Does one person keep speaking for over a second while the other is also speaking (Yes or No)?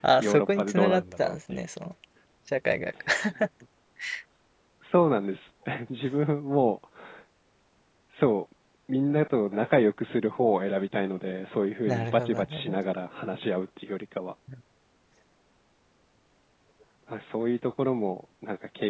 Yes